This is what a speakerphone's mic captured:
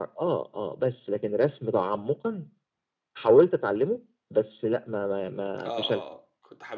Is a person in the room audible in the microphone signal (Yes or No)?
Yes